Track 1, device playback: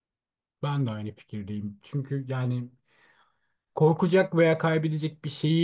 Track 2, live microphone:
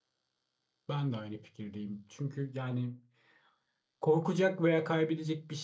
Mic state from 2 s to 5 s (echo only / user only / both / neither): echo only